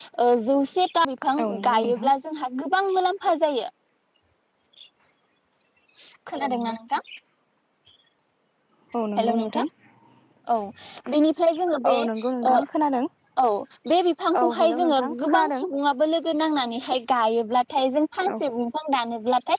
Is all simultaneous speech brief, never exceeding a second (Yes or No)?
No